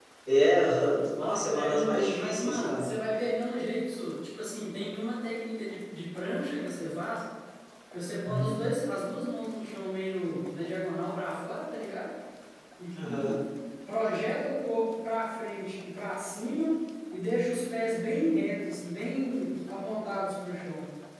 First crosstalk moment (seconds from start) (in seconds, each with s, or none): 1.2 s